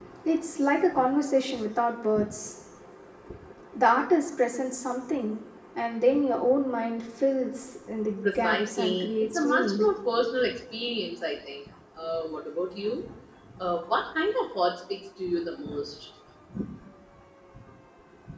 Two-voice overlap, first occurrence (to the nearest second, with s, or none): 8 s